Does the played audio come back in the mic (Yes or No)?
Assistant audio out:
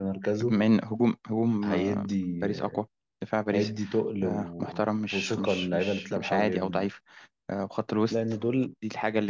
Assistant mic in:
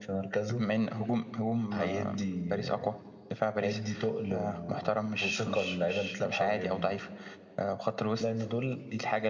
Yes